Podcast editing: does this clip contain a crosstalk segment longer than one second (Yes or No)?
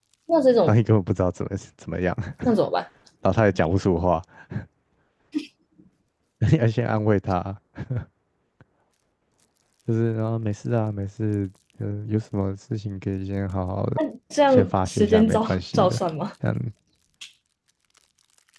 Yes